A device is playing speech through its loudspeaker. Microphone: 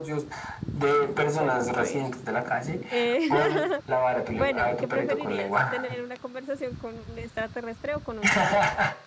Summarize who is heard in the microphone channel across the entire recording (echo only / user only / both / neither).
both